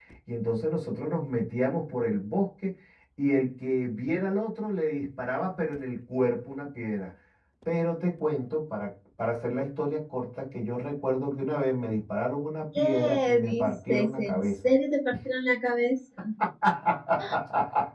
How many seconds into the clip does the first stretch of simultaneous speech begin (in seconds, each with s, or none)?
12.7 s